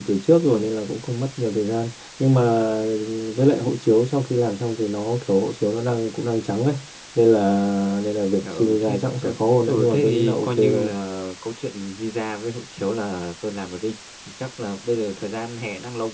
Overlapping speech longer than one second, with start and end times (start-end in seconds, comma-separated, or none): 8.4-10.9